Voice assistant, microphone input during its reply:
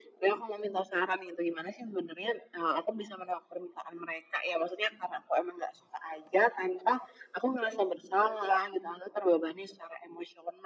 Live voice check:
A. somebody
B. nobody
B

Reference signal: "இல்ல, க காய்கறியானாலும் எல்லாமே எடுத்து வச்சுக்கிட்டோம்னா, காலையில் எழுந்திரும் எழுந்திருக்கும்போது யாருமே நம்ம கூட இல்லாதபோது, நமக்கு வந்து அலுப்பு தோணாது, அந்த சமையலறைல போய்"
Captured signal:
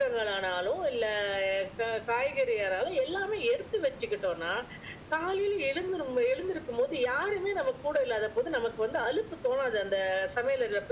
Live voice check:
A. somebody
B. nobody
B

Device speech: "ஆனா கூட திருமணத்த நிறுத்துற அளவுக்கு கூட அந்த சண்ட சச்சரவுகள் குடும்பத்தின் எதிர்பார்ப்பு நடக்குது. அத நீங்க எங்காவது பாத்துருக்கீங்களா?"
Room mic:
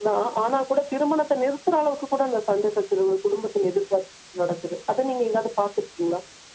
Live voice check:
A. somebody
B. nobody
B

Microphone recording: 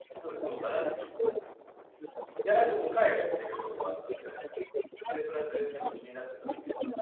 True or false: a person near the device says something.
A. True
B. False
A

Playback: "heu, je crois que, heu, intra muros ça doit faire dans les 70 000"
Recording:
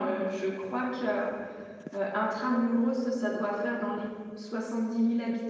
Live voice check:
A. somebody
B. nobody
B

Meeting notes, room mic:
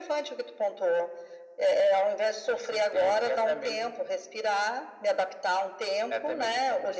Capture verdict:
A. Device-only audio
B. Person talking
A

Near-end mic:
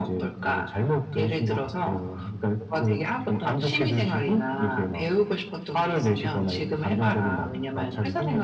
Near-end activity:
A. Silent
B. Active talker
A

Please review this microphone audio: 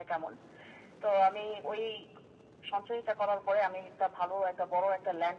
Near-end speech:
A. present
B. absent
B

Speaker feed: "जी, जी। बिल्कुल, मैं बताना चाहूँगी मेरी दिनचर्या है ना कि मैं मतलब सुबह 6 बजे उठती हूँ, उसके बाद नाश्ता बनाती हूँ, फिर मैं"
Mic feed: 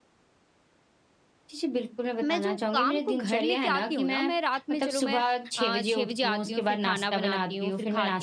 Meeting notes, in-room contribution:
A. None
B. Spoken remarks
B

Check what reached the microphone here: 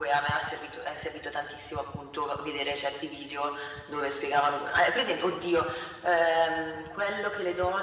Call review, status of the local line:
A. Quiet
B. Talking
A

